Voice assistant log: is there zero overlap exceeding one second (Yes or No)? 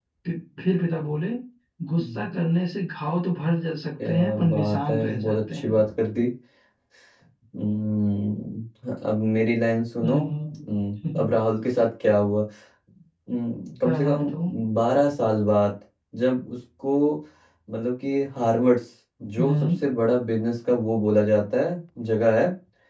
No